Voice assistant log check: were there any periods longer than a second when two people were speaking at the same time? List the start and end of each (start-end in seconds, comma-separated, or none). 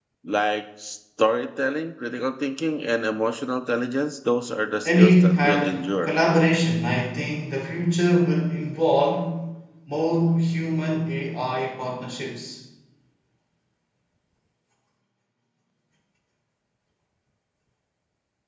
4.8-6.1